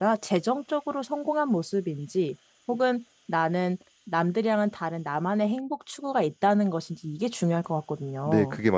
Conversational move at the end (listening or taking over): taking over